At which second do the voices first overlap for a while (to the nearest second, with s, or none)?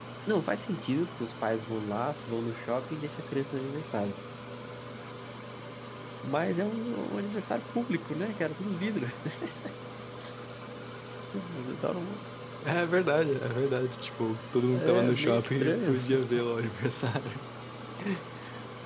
15 s